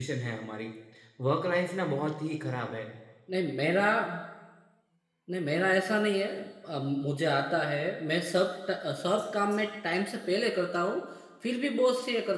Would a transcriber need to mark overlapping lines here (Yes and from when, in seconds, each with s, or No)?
No